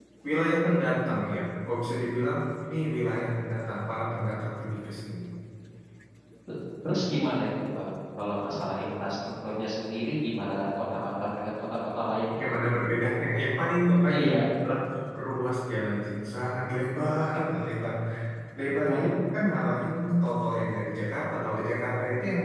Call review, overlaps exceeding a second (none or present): none